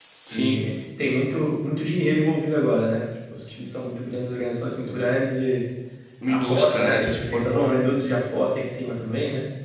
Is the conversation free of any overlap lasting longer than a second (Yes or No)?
No